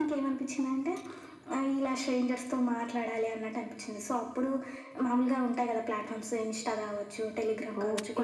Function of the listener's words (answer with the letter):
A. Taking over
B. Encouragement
A